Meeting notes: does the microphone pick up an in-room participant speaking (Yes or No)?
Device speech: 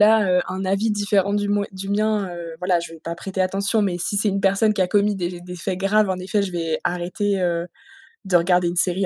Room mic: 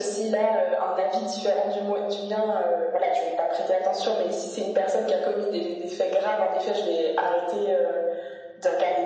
No